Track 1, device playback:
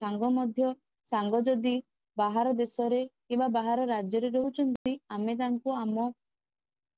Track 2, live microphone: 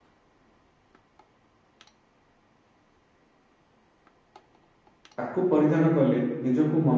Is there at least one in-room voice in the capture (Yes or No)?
Yes